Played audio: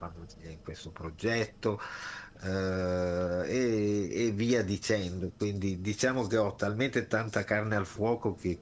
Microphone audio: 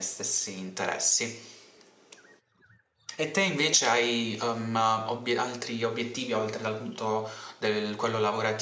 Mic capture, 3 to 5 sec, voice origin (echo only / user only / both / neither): user only